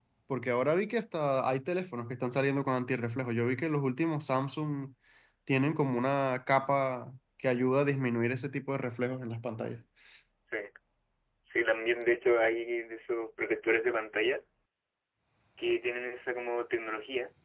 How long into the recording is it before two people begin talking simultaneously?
none

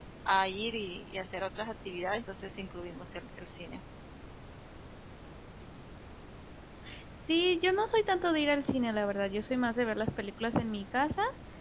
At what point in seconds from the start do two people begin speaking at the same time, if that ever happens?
none

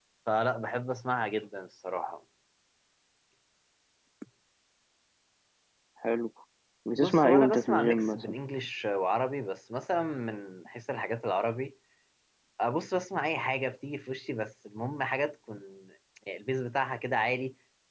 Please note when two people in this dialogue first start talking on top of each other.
7 s

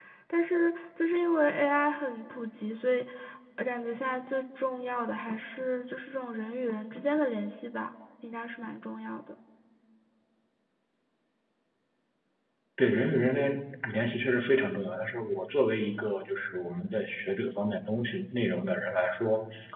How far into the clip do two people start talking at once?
none

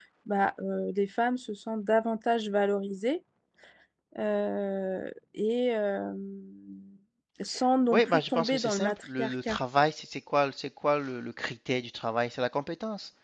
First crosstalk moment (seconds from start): 8 s

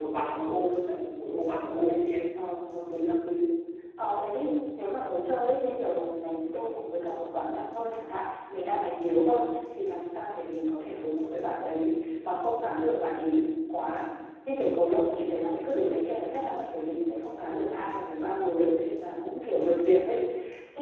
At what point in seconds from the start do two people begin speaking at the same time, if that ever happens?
none

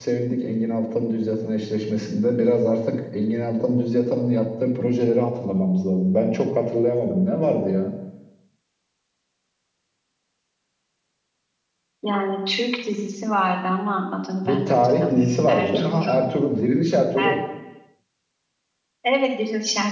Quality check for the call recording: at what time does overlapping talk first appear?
14 s

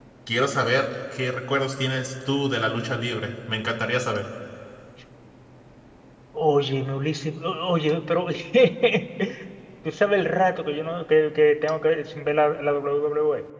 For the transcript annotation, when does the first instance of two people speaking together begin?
none

